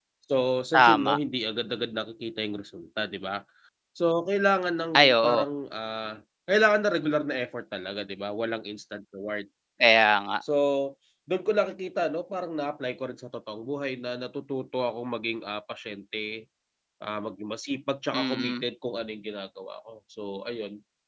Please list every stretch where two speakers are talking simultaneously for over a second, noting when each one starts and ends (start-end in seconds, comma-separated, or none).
none